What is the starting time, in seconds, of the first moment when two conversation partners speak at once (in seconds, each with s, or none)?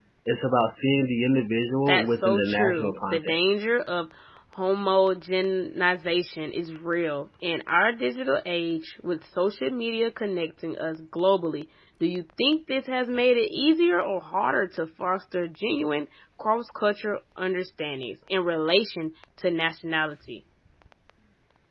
1.9 s